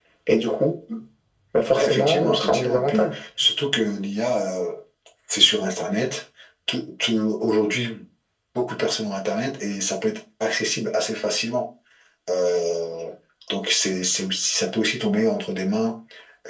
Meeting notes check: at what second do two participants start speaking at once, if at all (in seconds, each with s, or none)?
1.8 s